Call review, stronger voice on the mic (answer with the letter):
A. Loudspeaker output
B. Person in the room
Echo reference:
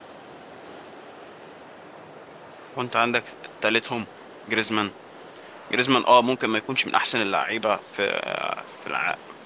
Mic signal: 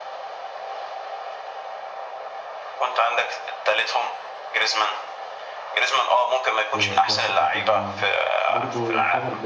A